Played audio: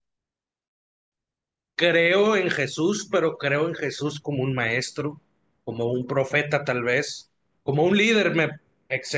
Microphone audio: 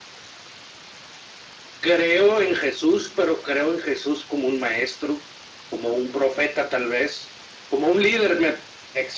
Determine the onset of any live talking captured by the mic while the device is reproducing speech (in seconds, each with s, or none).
none